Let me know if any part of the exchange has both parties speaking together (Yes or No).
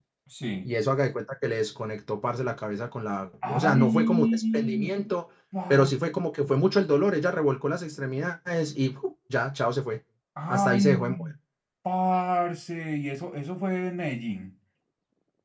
Yes